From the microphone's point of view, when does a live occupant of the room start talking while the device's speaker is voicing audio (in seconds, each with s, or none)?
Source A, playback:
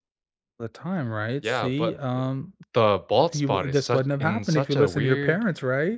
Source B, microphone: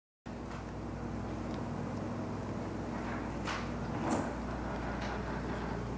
none